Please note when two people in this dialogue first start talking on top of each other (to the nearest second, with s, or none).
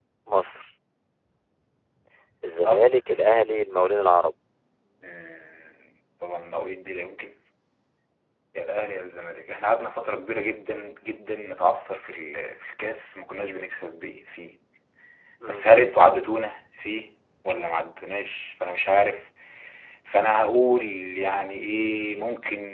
3 s